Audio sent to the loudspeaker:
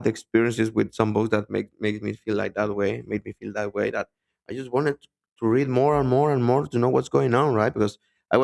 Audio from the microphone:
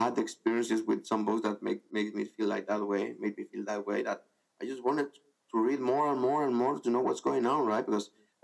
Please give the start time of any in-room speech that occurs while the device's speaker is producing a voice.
none

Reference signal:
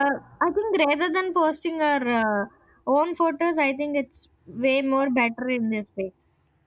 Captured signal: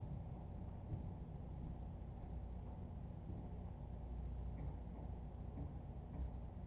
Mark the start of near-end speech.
none

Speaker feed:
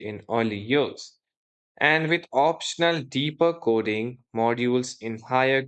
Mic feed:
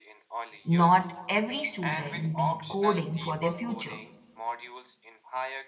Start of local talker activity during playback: 0.6 s

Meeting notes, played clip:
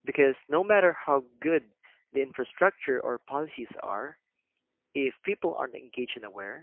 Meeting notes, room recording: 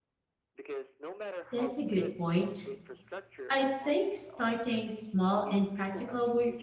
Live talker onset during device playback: 1.5 s

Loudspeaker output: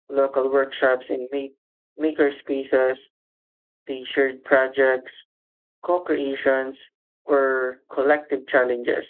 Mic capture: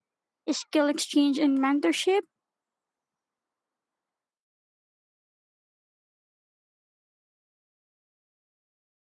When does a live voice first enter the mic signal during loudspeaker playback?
0.5 s

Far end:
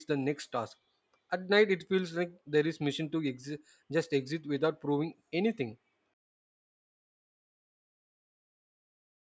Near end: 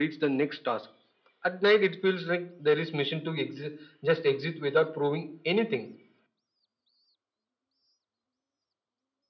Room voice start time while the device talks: none

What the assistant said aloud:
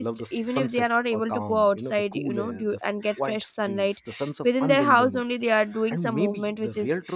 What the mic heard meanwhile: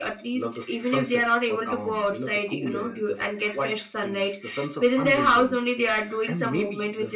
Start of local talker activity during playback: none

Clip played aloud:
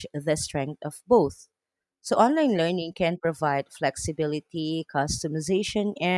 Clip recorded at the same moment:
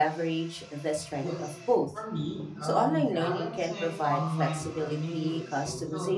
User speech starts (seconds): 1.2 s

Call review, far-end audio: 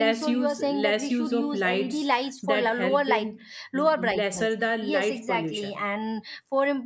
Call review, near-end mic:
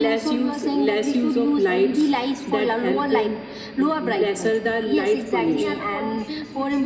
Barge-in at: 5.4 s

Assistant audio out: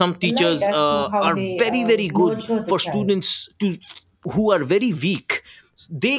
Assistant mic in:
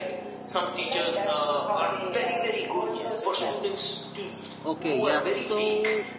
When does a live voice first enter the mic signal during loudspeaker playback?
2.9 s

